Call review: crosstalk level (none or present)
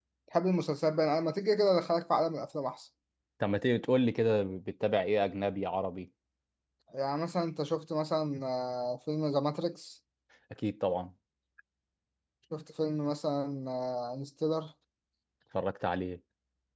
none